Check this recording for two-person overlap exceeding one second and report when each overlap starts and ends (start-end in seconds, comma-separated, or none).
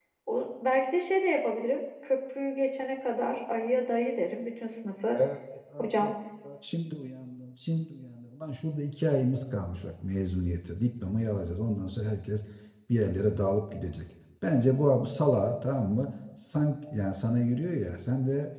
none